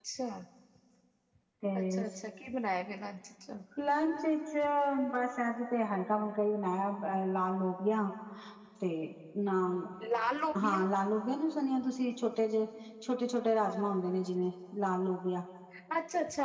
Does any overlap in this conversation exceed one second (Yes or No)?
No